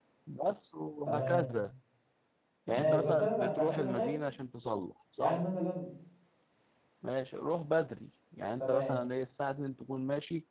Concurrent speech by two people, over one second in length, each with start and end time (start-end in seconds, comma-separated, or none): 2.7-4.1